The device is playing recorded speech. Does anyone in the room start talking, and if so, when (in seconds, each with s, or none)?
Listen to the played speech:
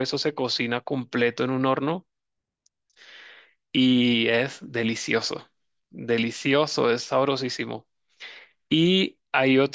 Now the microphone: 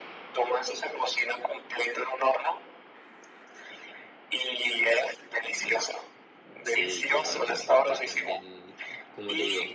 6.6 s